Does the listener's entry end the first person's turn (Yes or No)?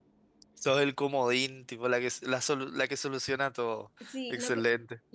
Yes